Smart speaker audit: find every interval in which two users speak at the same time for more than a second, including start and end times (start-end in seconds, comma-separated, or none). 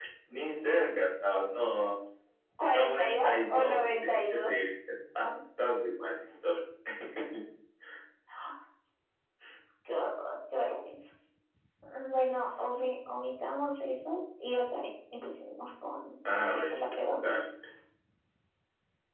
2.7-4.5